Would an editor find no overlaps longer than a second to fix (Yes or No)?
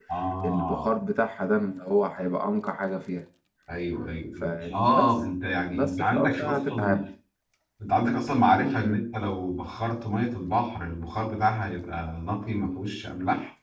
No